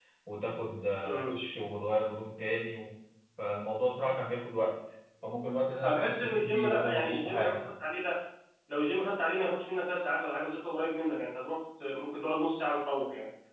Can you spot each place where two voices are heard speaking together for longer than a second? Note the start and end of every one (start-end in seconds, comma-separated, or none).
5.8-7.7